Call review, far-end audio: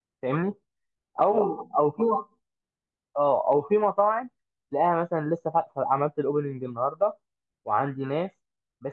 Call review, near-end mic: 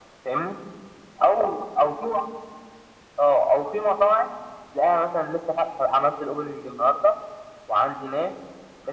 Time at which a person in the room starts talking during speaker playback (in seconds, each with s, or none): none